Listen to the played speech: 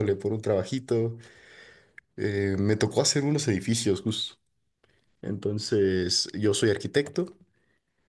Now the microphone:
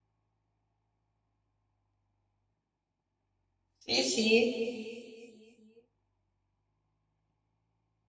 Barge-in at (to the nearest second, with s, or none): 4 s